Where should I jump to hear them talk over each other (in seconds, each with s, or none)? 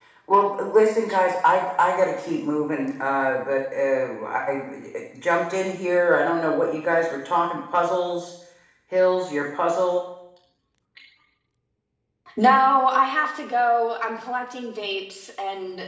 none